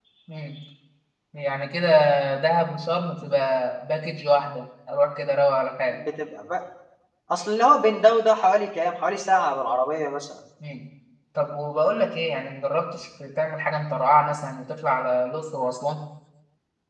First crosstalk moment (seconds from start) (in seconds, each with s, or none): none